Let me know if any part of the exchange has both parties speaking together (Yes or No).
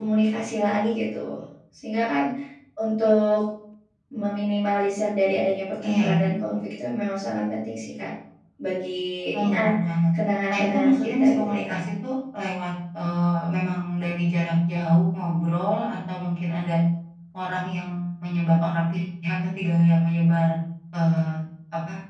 Yes